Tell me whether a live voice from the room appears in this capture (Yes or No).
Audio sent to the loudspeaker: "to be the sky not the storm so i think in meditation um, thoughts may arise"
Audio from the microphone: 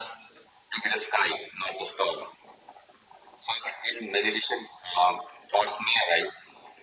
No